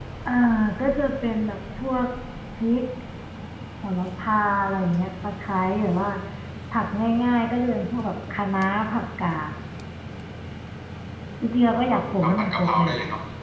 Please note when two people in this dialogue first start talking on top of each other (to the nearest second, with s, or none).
12 s